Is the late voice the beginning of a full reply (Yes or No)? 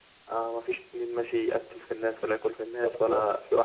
No